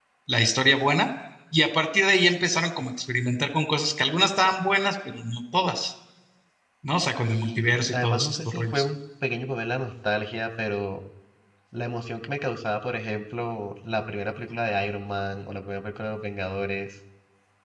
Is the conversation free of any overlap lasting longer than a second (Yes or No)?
No